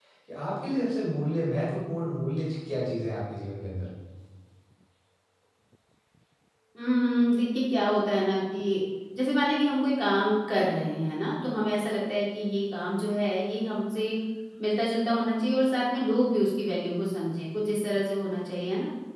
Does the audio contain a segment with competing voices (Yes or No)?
No